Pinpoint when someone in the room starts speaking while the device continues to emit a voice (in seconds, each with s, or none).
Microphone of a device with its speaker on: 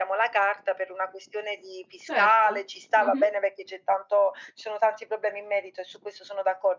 2.0 s